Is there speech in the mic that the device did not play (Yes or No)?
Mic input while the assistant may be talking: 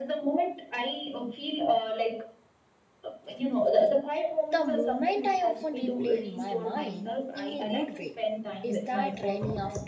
Yes